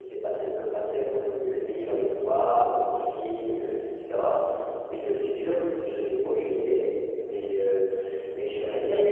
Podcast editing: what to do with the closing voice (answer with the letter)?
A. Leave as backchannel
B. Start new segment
A